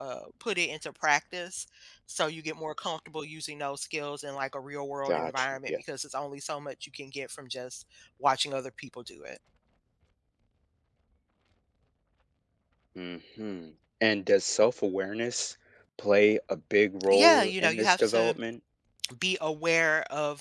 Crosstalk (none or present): present